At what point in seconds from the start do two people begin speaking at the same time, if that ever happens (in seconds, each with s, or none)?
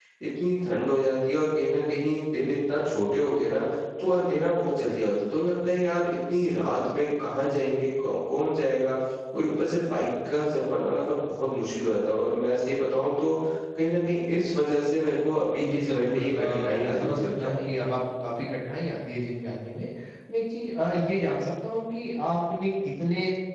15.6 s